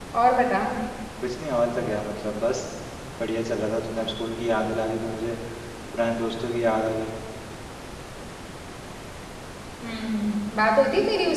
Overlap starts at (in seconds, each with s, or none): none